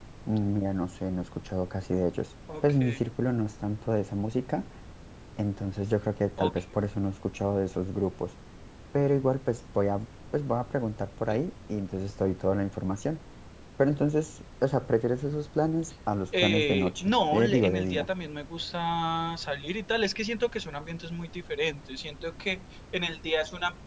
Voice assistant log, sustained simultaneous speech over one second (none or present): present